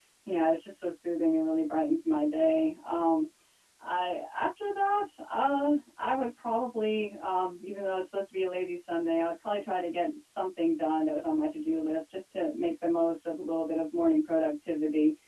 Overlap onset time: none

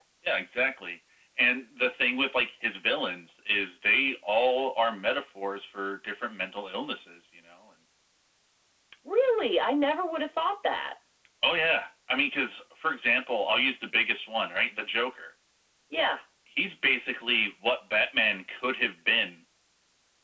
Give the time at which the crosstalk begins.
none

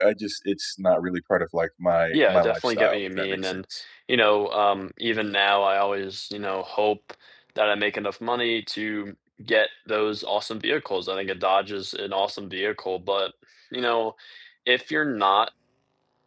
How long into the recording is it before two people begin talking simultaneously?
2 s

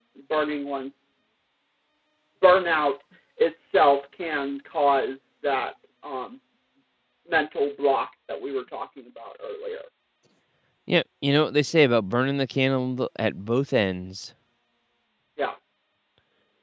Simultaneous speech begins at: none

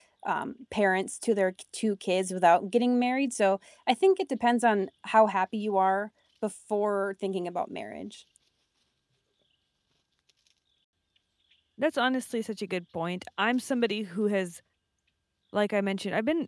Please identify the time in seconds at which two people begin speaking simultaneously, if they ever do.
none

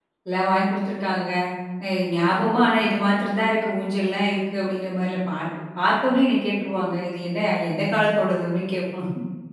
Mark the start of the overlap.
none

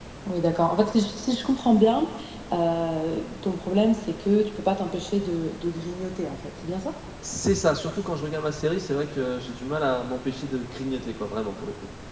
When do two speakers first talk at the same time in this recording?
none

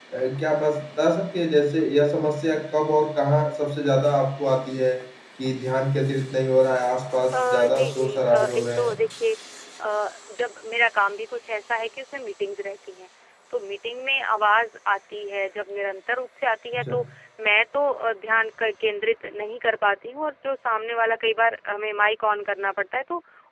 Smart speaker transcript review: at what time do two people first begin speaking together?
7 s

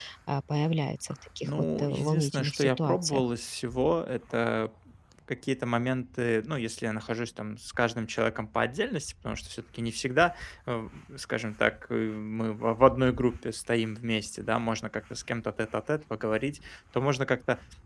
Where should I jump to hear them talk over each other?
1 s

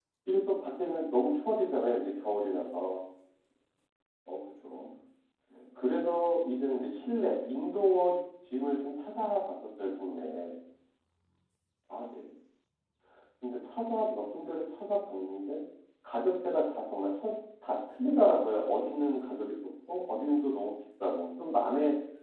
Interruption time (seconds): none

